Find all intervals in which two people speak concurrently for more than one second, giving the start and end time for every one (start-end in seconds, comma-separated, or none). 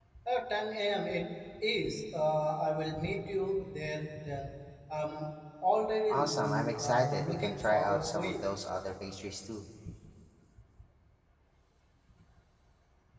6.1-8.5